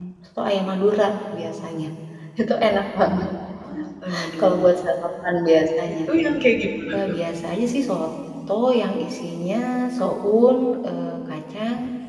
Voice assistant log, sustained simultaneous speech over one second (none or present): none